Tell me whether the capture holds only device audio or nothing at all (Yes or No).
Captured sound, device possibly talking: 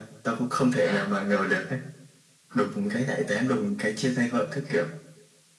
Yes